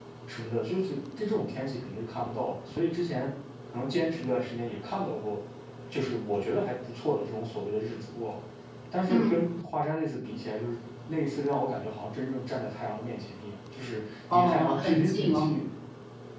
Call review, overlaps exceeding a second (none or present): present